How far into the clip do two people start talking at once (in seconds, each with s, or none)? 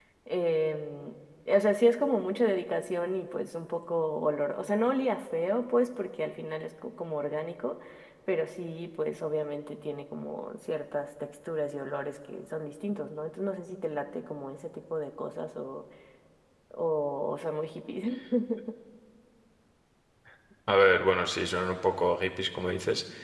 none